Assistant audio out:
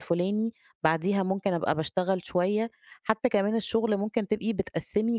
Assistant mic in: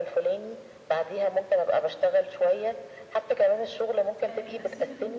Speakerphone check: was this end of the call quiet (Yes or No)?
No